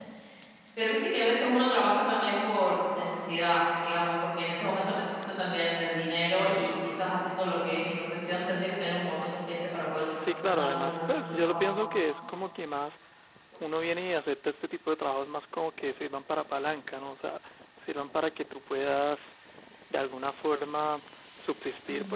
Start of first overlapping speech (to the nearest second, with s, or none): 10 s